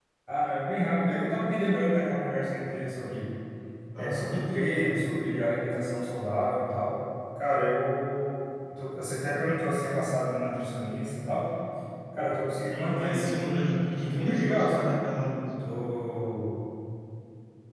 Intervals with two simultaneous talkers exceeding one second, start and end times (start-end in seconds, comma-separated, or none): 12.8-14.9